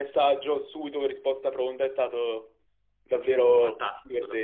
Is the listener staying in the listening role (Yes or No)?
No